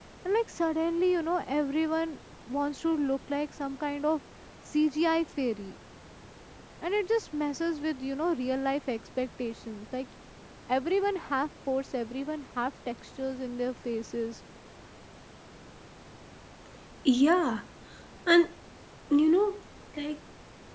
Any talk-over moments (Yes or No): No